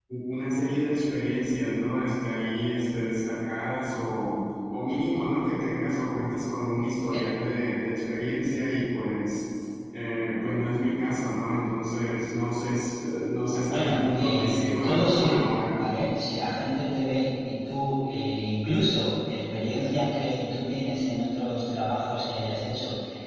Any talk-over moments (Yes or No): Yes